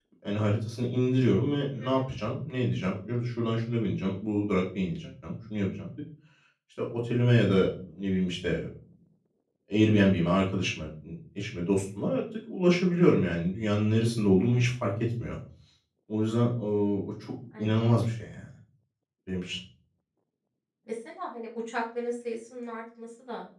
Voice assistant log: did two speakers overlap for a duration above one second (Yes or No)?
No